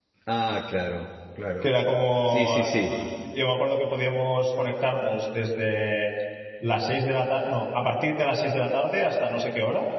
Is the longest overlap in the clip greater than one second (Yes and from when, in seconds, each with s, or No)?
No